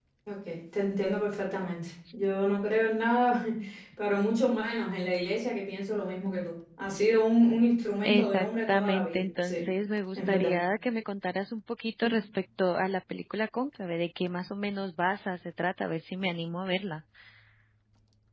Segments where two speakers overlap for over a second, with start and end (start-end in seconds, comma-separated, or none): 8.0-9.6